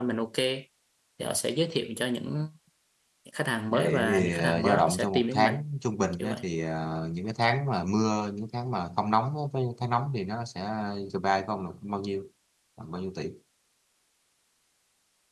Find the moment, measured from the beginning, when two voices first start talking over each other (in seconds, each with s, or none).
3.7 s